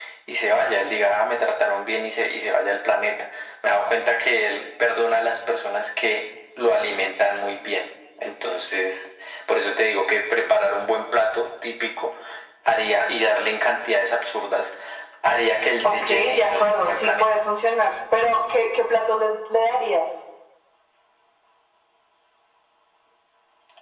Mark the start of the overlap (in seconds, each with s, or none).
15.8 s